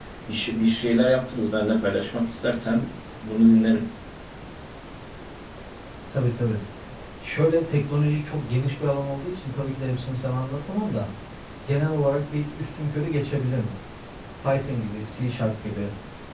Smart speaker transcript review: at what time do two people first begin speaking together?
none

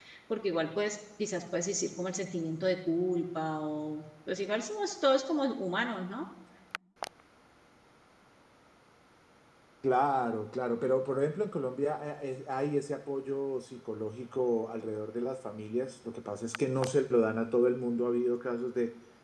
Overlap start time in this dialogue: none

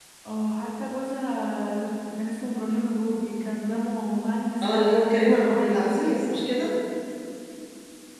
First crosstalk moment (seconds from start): 4.6 s

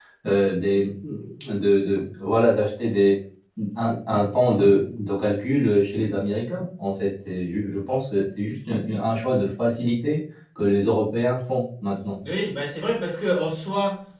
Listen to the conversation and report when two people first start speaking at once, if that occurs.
none

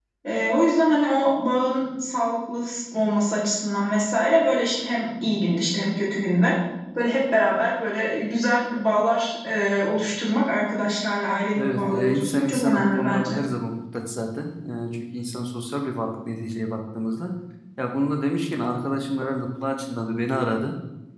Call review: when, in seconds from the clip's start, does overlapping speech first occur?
11.5 s

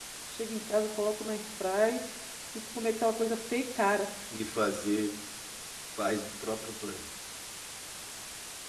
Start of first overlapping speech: none

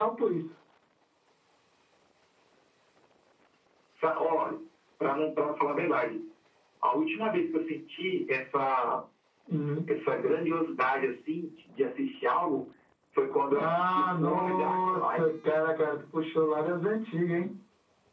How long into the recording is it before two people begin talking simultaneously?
13.5 s

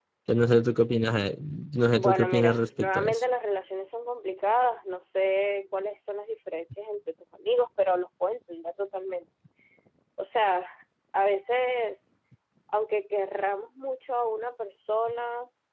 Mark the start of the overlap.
1.9 s

